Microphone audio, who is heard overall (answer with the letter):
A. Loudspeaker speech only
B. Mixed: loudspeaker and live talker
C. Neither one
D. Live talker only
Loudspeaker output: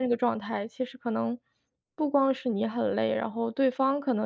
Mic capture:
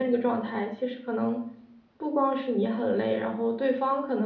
A